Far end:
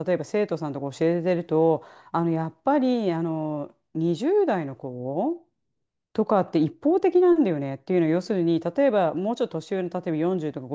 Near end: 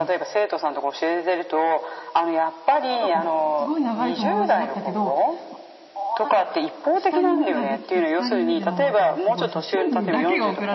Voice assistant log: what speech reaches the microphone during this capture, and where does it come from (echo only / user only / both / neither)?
both